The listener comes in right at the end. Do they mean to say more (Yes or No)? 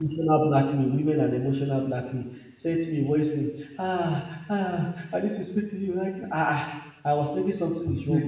No